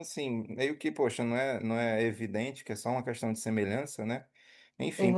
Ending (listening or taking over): listening